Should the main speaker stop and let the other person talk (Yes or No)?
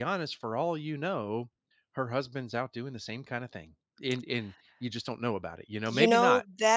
Yes